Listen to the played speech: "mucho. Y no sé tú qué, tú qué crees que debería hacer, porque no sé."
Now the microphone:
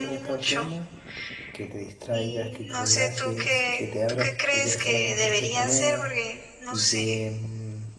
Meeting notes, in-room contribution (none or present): present